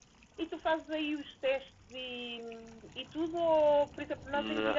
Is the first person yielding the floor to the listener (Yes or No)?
No